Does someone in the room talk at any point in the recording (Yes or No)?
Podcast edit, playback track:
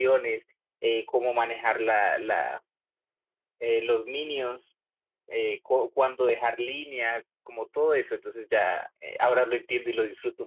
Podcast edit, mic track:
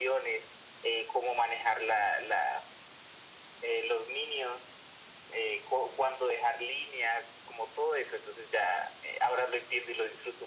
No